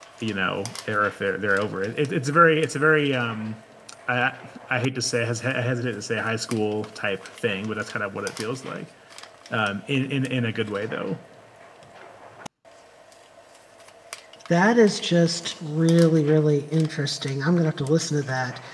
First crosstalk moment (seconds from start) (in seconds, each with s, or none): none